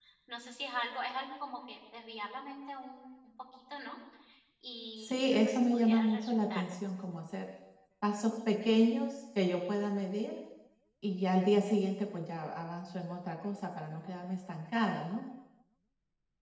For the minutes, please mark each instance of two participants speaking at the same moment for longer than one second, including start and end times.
5.0-6.6

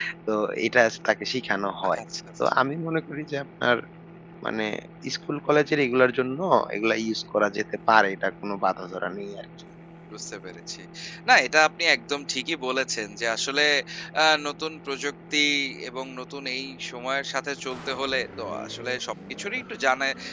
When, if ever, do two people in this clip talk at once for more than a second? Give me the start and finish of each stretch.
none

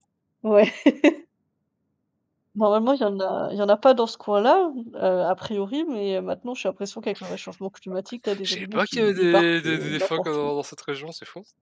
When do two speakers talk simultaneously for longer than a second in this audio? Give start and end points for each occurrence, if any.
8.4-10.5

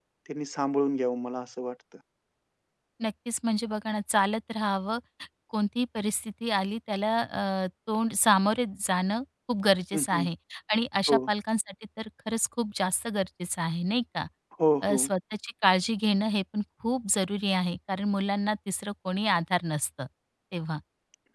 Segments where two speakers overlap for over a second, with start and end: none

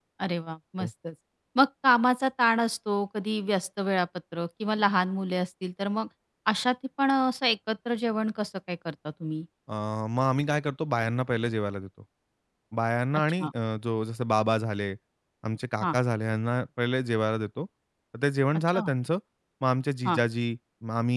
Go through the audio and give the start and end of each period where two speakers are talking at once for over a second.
none

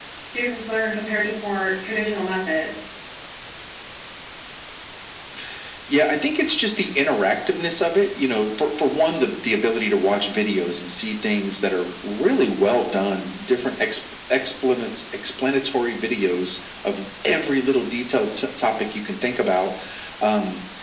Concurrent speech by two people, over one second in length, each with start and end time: none

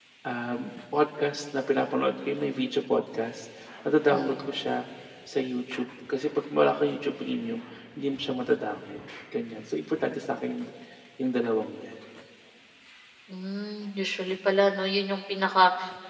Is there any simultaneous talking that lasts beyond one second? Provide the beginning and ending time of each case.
none

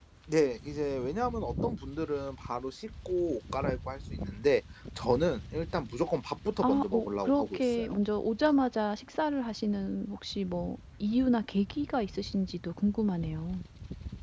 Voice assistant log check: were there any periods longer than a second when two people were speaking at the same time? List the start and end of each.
6.6-7.9

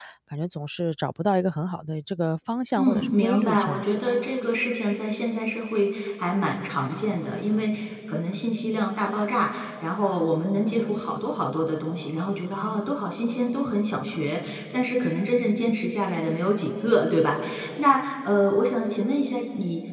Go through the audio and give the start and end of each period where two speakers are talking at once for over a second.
2.8-4.1

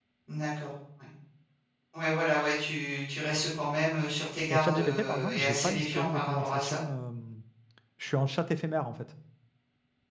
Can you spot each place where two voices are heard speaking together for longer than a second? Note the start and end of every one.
4.5-6.8

